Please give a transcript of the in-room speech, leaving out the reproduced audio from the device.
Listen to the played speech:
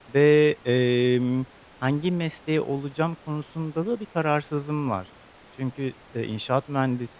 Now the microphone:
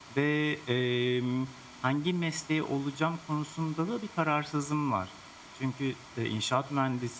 none

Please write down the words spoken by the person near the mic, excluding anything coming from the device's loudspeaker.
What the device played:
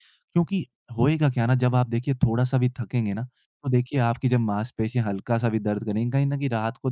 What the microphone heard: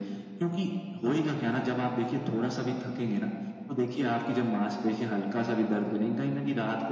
none

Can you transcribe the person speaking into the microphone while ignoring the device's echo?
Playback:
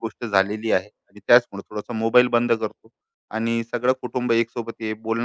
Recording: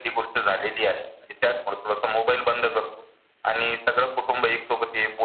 none

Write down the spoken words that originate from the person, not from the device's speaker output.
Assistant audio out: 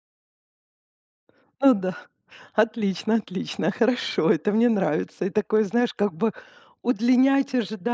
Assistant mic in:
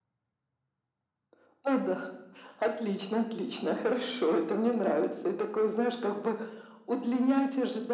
none

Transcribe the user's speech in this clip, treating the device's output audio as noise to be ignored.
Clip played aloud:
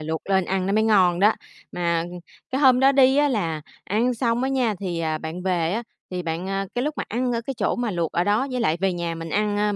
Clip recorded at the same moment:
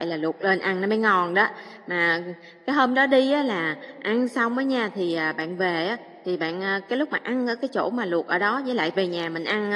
none

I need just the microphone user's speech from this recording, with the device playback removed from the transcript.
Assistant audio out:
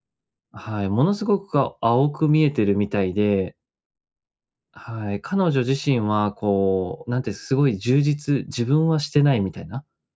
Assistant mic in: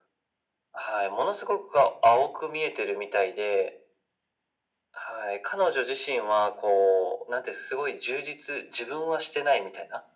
none

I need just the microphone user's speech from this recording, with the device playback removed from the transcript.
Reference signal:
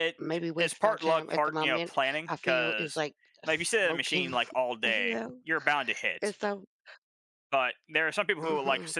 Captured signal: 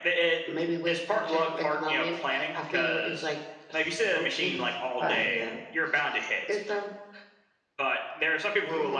Um,

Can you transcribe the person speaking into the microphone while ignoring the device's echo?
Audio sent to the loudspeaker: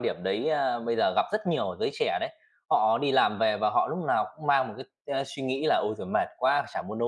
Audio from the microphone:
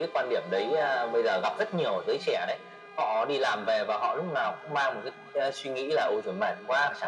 none

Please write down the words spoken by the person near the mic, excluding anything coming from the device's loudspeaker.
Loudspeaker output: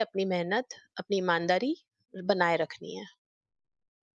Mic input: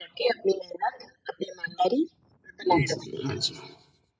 जी, अच्छा।

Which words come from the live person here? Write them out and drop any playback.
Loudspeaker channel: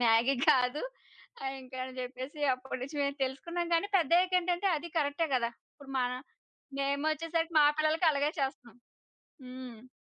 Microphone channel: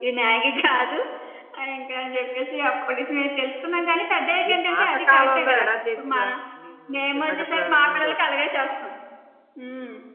మీ పాత కాలంలో ఎలా చేసేవారు? నువ్వు చిన్నగతనంలోని

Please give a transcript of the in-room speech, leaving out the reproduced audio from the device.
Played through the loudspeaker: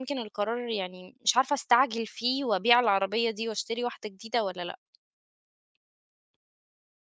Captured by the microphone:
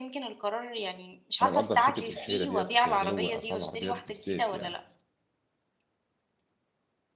أنا مقدّر حتّة الحيرة ديّة في غِلو أسعار العربيات بالذات يعني.

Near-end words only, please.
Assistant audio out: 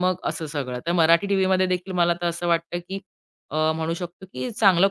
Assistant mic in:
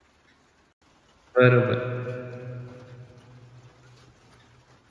बरोबर.

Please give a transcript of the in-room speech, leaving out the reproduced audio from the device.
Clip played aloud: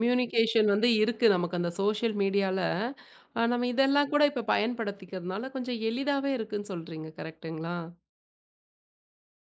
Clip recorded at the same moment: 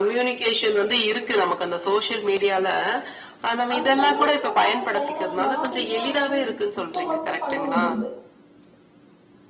அந்த அளவுக்கு நம்மளால வேற நாட்டிலேயே வந்து இப் இப்போ வந்து பண்ண முடியுது.

